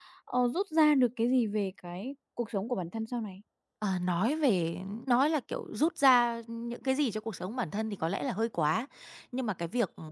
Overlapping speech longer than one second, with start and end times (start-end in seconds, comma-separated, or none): none